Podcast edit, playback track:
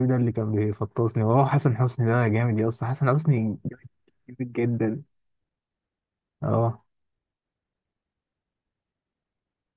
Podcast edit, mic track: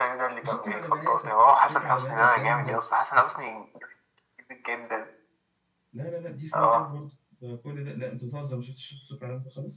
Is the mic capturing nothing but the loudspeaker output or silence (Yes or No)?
No